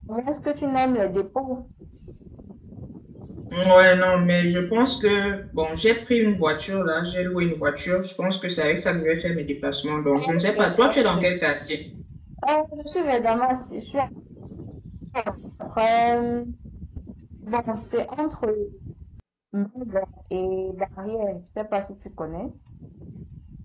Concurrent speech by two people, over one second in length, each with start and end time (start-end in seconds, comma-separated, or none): 10.2-11.4